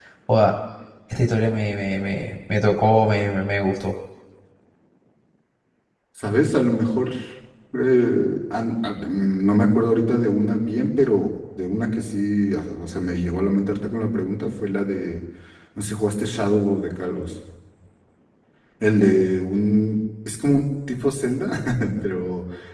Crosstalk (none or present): none